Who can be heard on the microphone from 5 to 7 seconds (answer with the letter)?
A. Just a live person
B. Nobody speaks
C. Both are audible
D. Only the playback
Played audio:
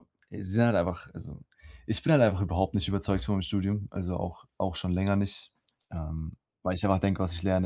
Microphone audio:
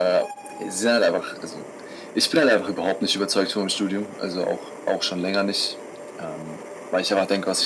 D